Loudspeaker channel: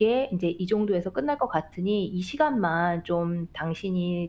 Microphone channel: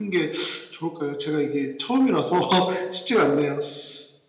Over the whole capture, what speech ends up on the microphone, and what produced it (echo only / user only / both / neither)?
user only